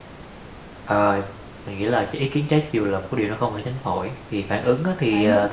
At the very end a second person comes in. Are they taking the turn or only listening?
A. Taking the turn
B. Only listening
B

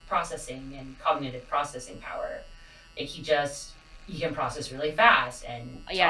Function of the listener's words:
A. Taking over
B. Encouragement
A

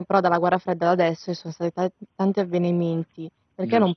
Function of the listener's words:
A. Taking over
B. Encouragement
B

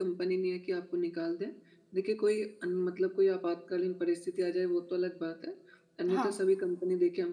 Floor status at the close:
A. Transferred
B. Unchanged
B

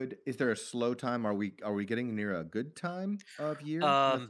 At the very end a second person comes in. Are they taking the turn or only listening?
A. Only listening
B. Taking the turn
B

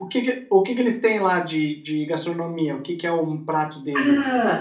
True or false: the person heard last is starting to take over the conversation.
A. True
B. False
A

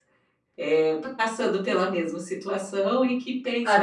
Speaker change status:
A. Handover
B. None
A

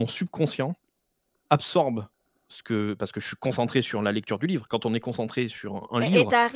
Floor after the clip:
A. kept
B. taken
B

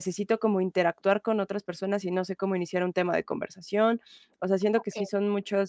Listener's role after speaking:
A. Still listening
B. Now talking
A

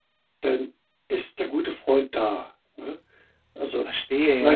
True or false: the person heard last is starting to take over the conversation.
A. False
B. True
B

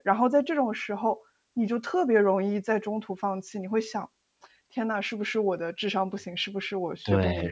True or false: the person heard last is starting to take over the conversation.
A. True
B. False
A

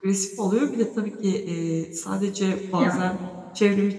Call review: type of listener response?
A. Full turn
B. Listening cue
B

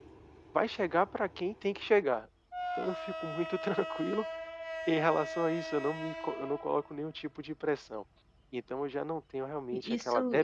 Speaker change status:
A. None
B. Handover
B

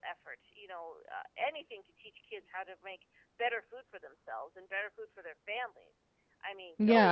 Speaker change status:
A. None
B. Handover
B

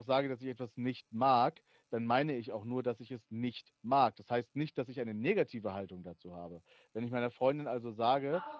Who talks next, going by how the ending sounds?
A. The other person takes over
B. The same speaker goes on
A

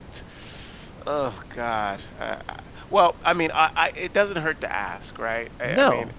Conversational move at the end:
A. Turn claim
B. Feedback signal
A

